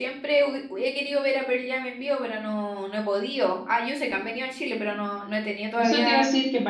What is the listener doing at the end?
taking over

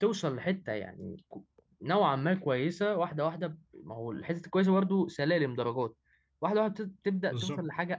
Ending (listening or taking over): listening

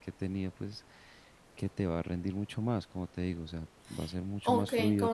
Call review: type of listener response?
taking over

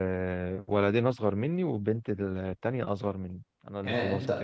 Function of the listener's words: taking over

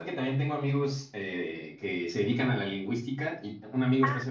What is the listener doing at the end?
listening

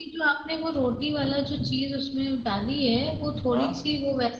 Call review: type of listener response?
listening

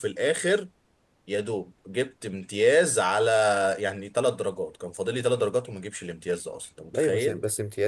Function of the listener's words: taking over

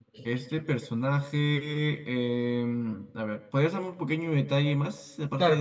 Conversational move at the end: taking over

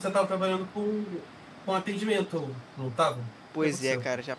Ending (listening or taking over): taking over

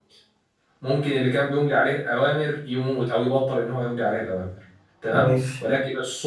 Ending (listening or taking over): listening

